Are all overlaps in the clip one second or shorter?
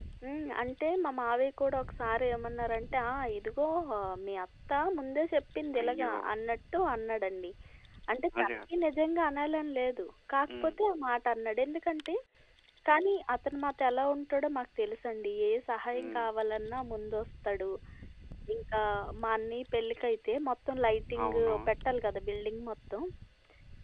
Yes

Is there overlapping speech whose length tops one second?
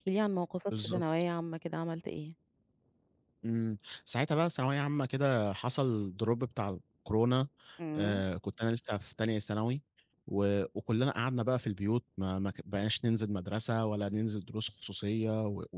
No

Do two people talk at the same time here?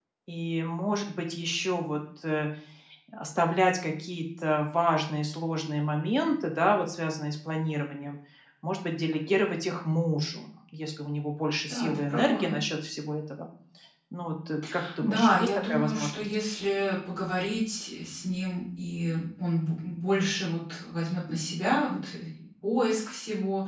Yes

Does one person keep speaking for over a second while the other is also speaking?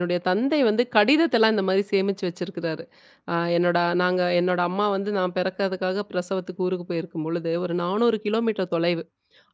No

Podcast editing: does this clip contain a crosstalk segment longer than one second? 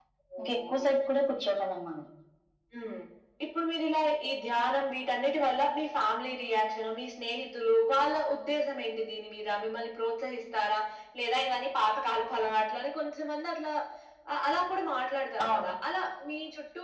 No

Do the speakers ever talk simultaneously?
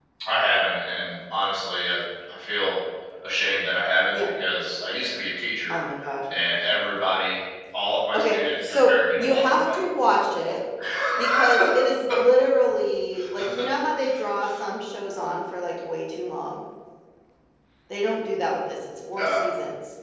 Yes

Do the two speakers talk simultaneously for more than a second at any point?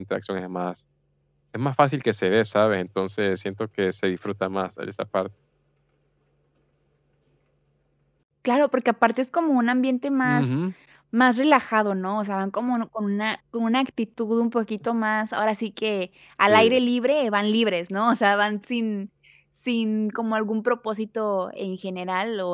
No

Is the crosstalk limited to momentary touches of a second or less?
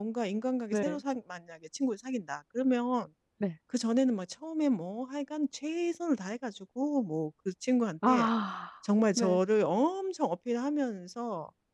Yes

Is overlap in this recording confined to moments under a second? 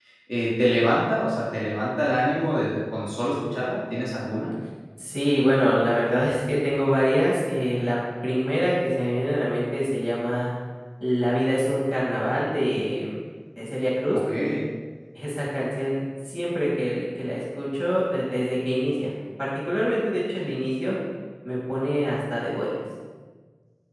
Yes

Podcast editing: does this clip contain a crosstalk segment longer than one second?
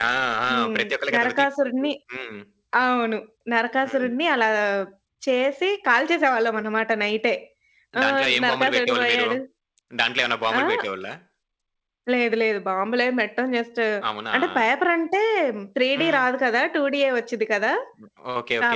Yes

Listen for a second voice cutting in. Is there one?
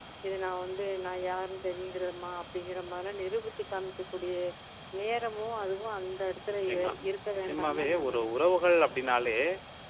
Yes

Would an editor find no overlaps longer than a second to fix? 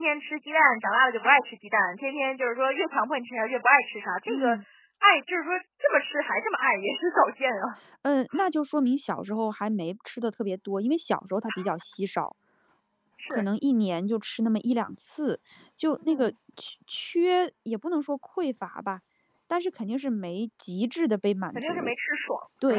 Yes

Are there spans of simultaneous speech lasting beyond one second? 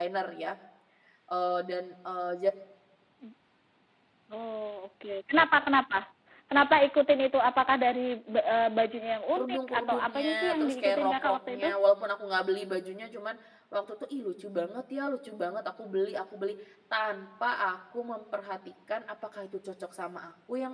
Yes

